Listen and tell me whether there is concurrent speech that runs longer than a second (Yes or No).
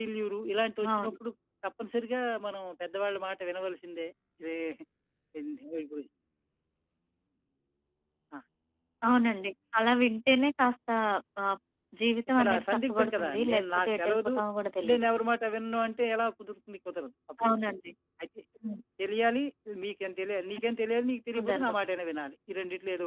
Yes